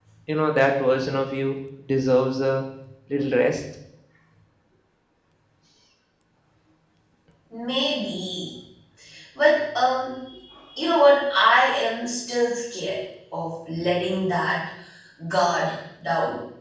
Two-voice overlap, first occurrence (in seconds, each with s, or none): none